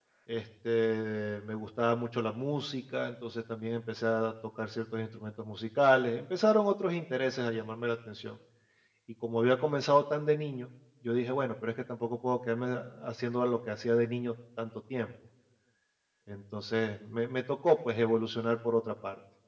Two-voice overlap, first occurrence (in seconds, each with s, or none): none